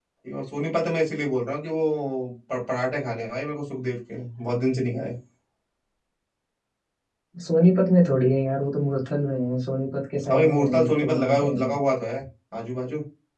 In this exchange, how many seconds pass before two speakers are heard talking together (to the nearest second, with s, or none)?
10 s